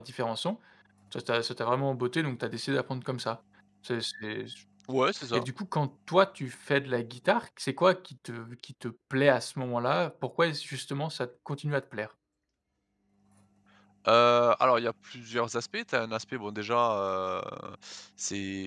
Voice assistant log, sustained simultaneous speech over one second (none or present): none